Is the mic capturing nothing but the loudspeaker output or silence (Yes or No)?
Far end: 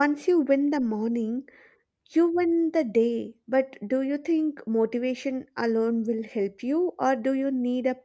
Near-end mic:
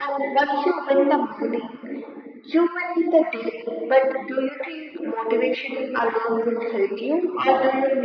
Yes